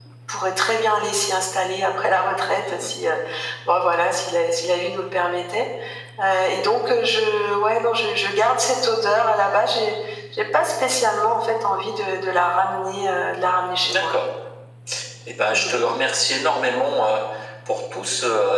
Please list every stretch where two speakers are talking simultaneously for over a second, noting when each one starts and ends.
none

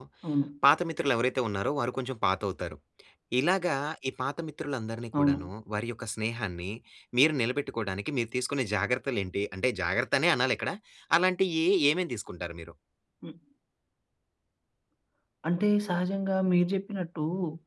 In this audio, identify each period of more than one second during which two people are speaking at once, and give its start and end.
none

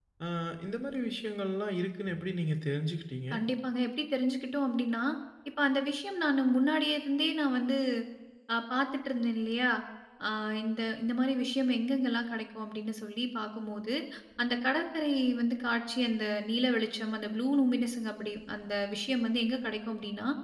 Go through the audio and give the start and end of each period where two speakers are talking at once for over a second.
none

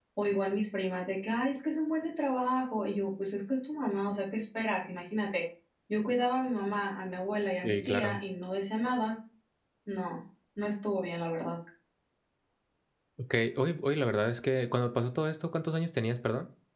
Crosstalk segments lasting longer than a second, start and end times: none

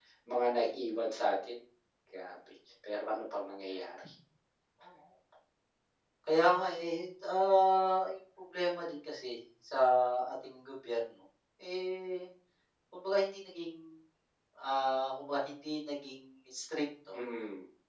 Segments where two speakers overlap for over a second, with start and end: none

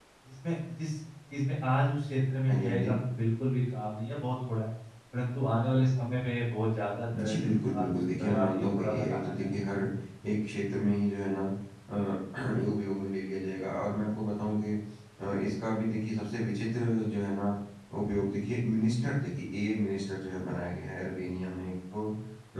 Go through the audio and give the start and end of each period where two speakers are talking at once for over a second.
7.2-9.3

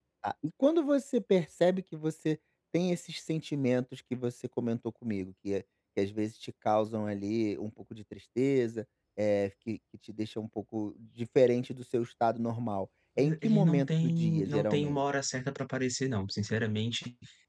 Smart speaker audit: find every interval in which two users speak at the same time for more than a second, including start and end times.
13.2-15.0

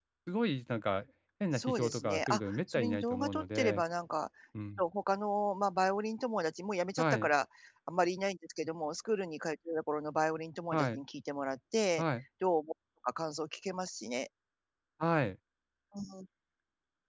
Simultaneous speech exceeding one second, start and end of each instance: 1.5-3.8

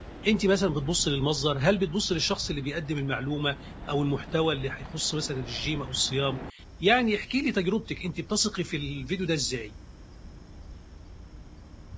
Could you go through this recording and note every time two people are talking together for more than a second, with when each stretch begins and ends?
none

